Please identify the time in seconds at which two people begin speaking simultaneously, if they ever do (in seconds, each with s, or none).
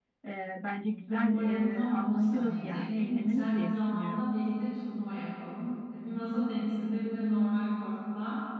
1.1 s